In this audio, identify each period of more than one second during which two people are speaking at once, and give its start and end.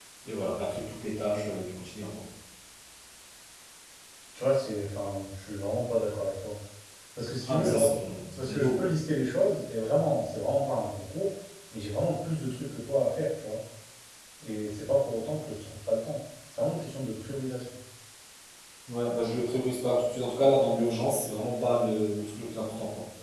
none

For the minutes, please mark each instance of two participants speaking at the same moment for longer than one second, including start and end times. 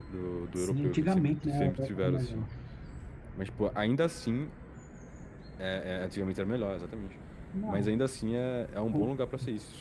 0.6-2.5

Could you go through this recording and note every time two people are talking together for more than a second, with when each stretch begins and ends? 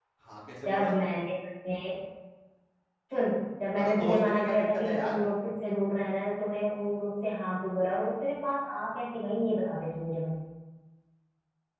3.8-5.2

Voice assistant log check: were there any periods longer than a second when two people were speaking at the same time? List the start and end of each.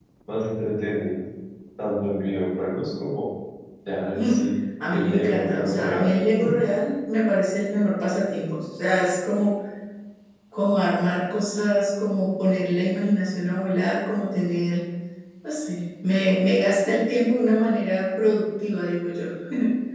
4.9-6.1

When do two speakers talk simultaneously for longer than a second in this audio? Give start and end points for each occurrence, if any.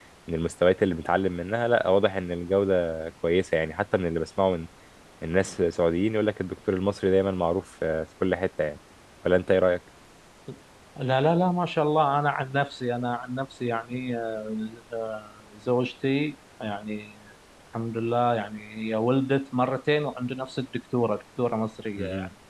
none

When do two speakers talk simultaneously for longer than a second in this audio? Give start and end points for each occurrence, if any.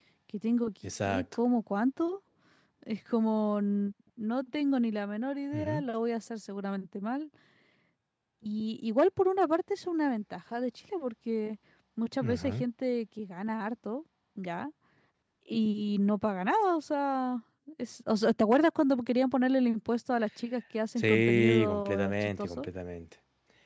21.0-22.7

